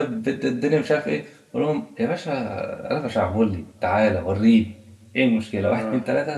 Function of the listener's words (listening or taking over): listening